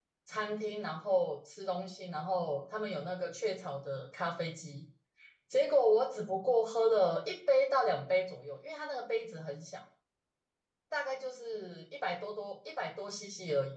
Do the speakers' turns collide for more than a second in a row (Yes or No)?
No